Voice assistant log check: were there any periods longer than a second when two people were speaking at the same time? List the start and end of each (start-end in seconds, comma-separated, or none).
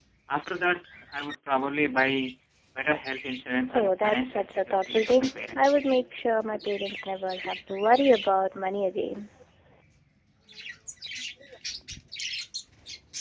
3.7-5.6